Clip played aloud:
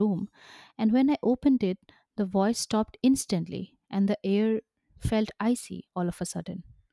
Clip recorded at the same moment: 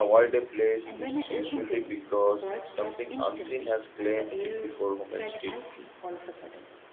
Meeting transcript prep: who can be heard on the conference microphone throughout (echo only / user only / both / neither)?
both